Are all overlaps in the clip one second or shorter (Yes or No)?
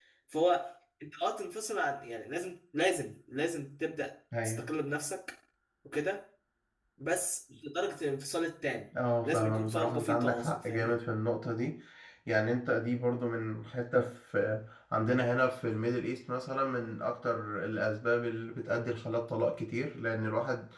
No